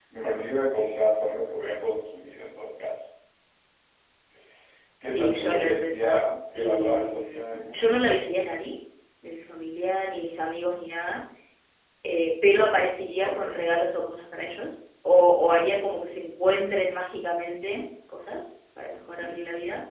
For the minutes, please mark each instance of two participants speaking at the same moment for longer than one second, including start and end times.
5.0-8.1

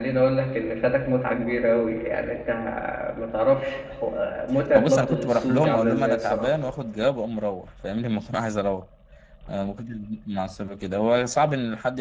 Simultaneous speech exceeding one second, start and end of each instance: 4.7-6.5

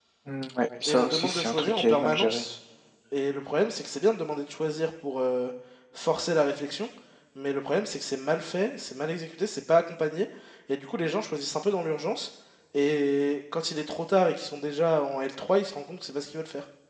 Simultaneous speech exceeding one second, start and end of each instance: 0.9-2.4

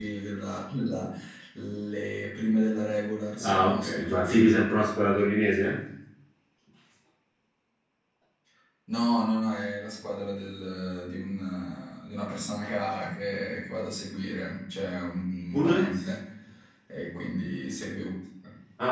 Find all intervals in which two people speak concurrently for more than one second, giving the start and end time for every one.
3.4-4.7

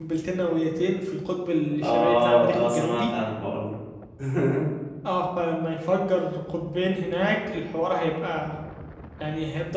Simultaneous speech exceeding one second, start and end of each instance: 1.8-3.0

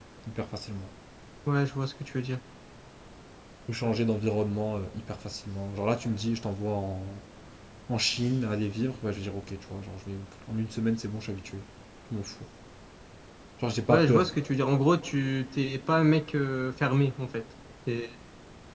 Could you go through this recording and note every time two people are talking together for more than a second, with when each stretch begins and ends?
none

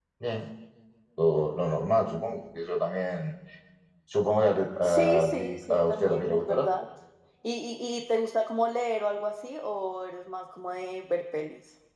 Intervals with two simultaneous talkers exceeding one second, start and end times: 4.8-6.7

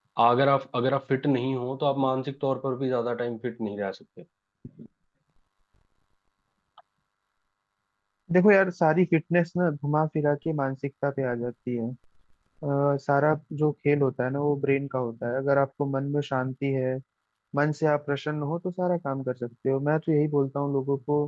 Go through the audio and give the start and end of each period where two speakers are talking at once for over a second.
none

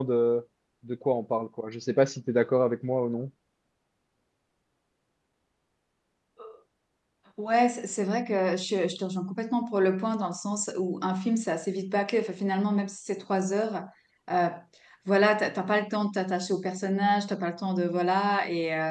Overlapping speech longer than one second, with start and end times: none

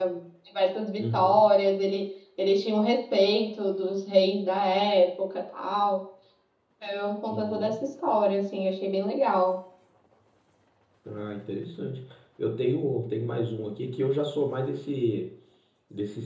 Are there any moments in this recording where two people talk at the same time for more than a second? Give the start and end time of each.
none

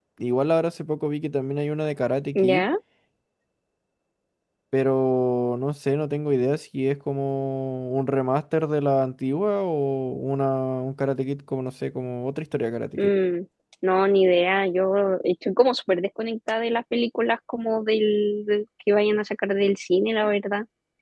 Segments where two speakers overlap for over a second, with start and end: none

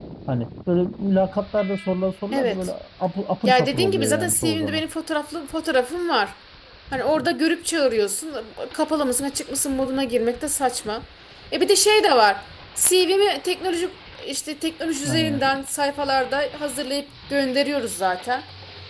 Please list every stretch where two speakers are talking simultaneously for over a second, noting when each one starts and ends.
3.5-4.8

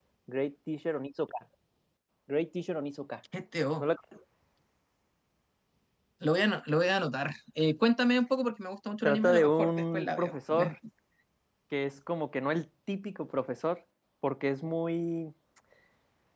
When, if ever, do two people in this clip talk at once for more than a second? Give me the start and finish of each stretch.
9.1-10.8

